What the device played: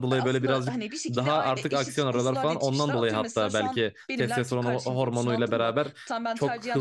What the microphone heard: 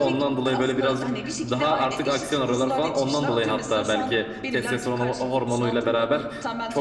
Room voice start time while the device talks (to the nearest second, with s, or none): none